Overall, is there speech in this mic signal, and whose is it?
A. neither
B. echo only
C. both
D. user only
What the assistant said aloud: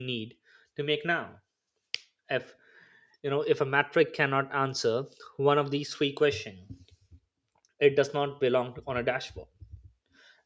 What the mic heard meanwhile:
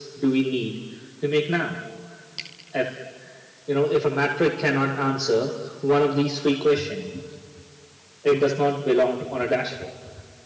B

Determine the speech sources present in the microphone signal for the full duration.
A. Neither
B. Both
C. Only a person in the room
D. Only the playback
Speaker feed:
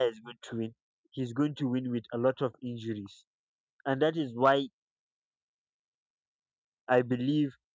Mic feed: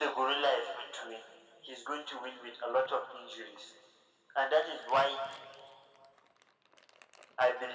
D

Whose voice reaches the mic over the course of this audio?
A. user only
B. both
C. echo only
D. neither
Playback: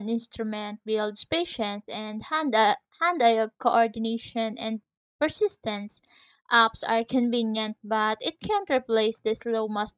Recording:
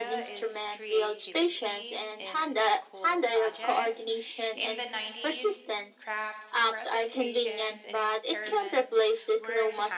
B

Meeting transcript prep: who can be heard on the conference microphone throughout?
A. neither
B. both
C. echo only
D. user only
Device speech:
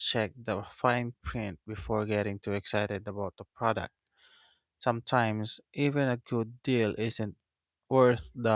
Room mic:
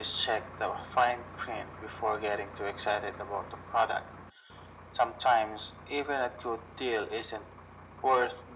C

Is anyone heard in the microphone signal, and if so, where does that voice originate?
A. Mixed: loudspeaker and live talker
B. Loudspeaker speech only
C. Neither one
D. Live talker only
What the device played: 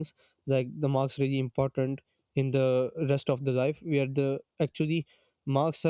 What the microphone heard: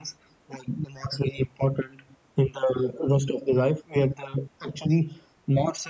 B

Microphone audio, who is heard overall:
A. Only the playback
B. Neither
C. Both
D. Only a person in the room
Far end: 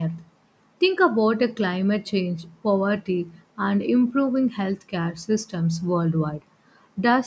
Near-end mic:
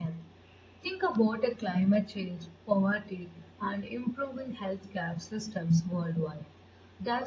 A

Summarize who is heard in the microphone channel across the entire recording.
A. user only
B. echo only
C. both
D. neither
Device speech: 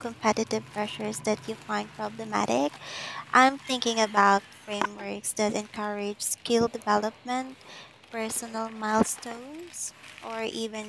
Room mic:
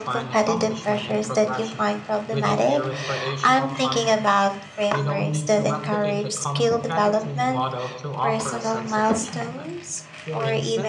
C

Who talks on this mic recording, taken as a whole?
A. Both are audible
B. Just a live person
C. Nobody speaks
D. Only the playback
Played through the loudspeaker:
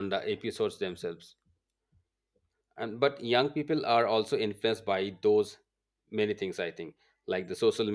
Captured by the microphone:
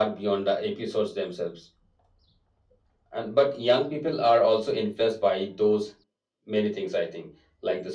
D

